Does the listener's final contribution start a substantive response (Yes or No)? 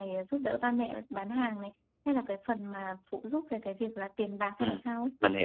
Yes